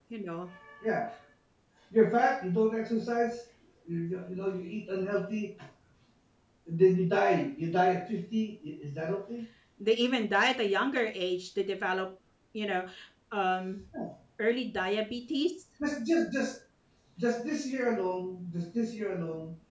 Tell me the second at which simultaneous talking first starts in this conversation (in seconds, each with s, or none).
none